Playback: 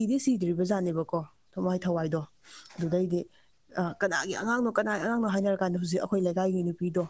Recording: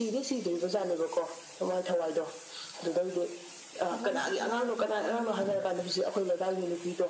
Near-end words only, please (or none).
ꯊꯝꯃꯣꯏ ꯁꯣꯛꯅꯤꯡꯉꯥꯏ ꯑꯣꯏꯕ ꯋꯥꯔꯤꯅꯤꯅꯦ